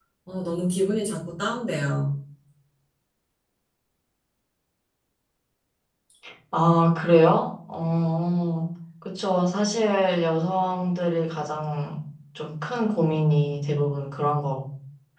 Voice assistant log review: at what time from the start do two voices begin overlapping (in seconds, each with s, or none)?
none